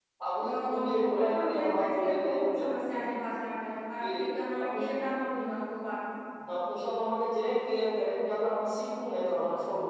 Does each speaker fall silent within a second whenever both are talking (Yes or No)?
No